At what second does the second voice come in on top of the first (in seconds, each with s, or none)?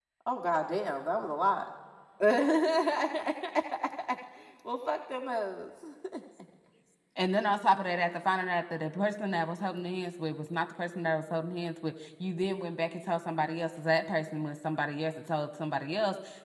none